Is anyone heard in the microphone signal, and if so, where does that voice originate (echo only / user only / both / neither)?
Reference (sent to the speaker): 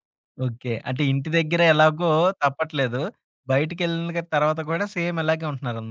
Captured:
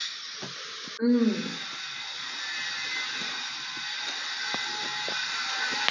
user only